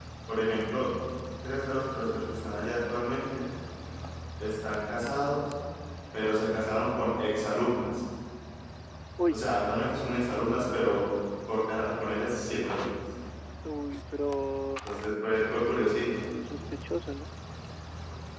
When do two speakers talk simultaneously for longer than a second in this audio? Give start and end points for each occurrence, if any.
none

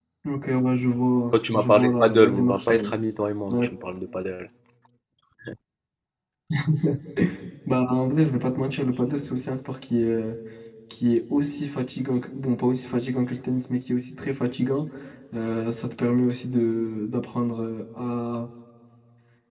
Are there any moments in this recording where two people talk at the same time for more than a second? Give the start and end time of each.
1.3-2.9

